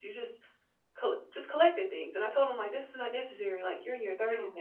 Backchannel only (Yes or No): Yes